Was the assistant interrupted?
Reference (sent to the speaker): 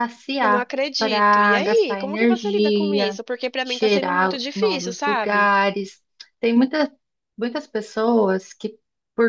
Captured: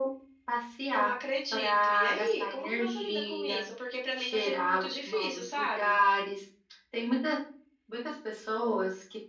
No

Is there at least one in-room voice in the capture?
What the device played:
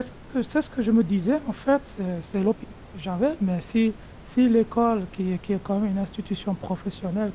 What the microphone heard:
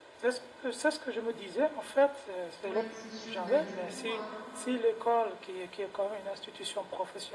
Yes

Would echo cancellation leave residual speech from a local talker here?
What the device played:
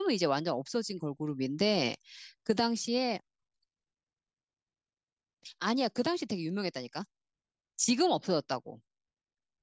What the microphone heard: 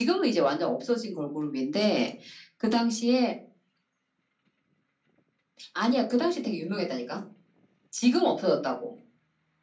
No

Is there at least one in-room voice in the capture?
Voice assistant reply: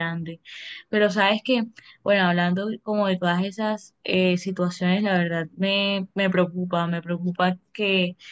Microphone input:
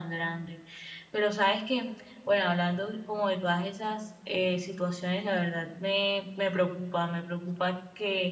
No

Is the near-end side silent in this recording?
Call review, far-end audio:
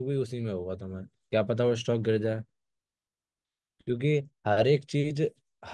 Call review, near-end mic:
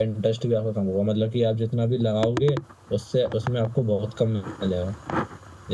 No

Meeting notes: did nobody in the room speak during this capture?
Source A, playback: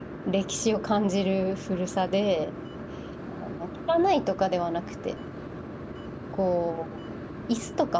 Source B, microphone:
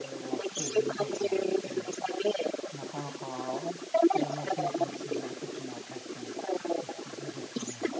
No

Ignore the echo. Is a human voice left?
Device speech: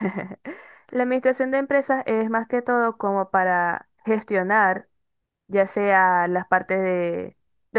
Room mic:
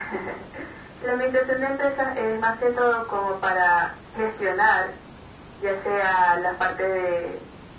No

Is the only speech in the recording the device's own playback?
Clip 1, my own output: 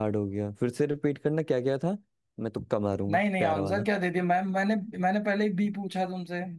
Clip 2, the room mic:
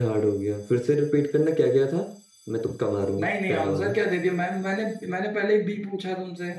Yes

